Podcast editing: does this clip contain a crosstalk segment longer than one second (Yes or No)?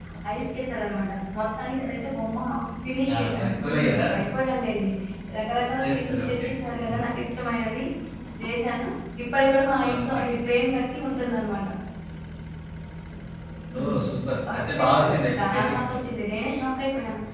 Yes